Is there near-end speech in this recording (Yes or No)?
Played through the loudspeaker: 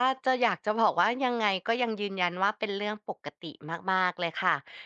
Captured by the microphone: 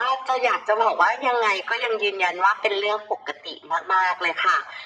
No